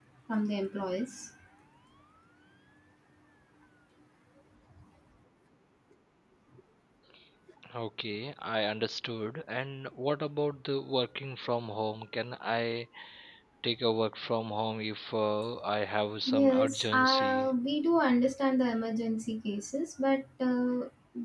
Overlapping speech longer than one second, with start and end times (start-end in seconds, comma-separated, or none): 16.3-17.5